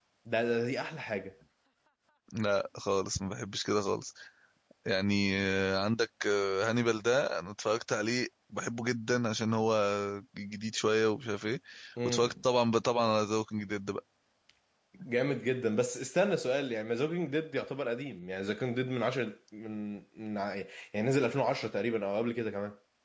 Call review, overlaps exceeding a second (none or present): none